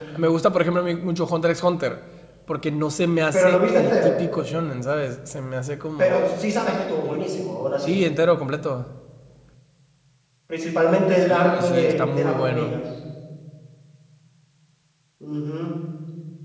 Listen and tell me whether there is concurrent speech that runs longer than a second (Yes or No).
Yes